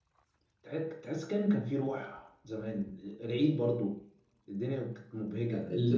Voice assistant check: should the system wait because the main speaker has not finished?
No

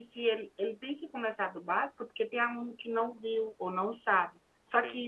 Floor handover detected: No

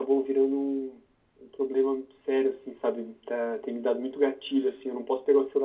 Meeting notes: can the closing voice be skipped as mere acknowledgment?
Yes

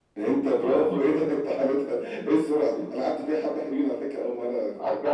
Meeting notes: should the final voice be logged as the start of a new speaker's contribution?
Yes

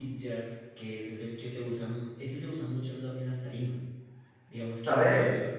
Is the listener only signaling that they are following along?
Yes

